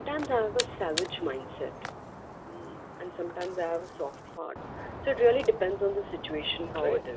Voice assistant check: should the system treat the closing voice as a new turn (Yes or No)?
Yes